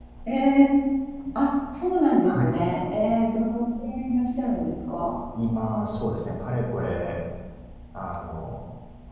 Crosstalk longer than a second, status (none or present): none